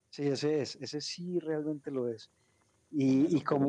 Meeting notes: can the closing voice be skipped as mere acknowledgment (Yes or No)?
No